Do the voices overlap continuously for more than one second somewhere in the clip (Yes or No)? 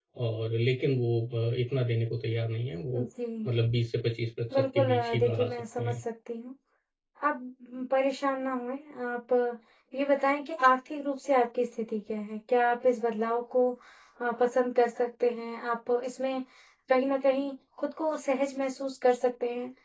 Yes